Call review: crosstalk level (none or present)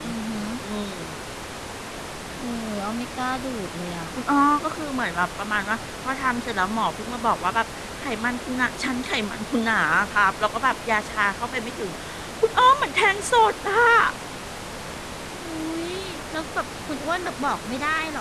none